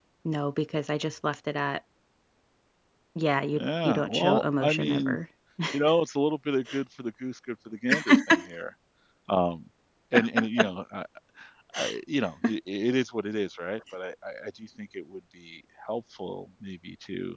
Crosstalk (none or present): present